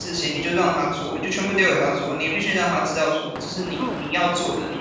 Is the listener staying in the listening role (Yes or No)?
Yes